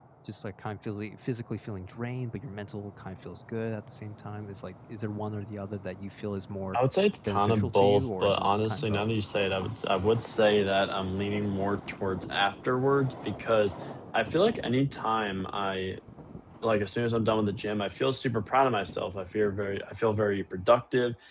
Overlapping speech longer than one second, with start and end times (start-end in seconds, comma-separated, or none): 7.2-9.1